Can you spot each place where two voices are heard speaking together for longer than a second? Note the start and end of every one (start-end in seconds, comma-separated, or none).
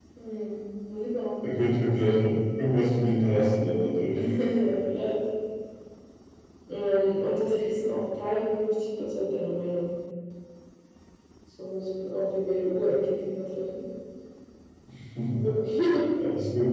none